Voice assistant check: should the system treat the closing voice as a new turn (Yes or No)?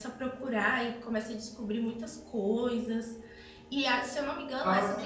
No